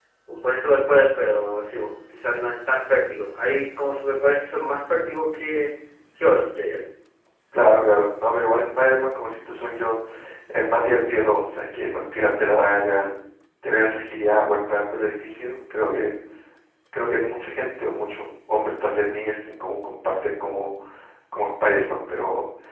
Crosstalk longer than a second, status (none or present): none